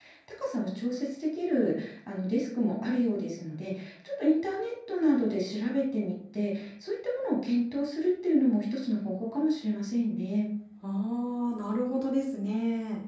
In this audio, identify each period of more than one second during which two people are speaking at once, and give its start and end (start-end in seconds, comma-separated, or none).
none